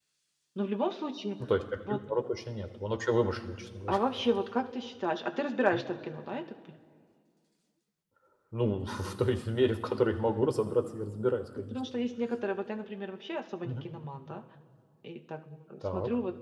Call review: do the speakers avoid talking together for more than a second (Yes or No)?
Yes